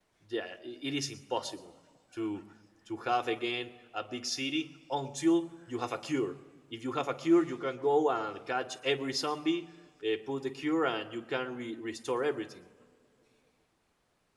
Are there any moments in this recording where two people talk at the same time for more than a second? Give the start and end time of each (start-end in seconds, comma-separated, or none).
none